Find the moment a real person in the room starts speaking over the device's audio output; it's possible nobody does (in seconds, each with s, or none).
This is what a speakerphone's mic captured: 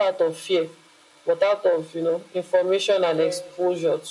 3.0 s